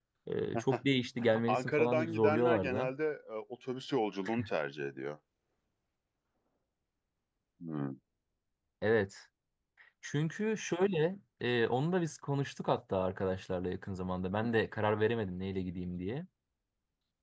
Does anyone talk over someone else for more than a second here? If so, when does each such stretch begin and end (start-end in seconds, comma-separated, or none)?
1.5-2.9